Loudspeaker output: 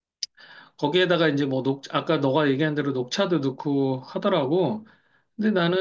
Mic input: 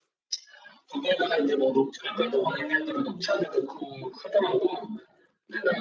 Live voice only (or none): 음,